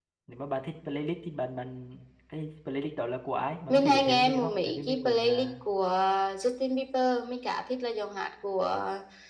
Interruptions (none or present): present